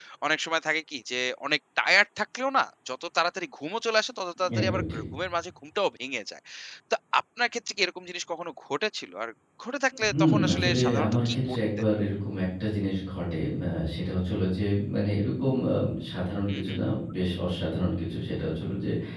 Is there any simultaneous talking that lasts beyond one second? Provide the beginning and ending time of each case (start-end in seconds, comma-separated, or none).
10.1-11.6